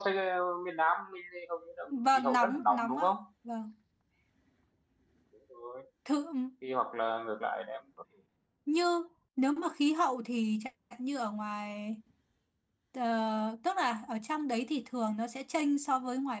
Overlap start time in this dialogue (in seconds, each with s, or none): 1.9 s